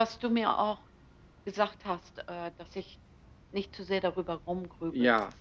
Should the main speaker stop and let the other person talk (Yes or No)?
Yes